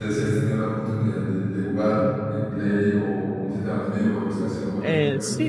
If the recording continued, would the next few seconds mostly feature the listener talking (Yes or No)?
Yes